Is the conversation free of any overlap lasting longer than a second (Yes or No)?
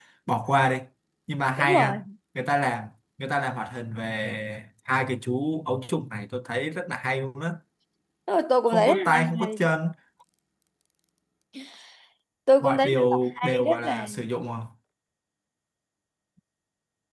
No